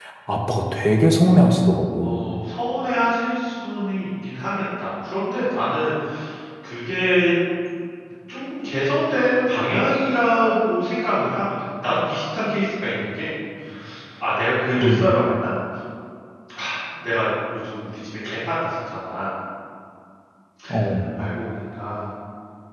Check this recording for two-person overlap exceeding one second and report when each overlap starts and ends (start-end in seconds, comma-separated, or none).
none